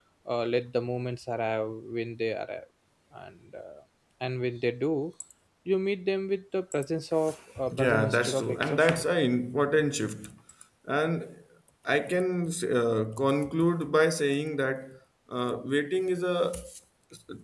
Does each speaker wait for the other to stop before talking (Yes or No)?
No